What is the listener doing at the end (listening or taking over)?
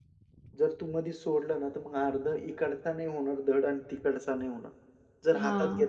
listening